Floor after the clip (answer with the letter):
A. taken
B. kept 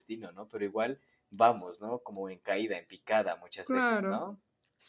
A